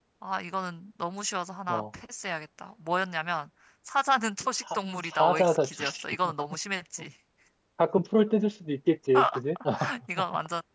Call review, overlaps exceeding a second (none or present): present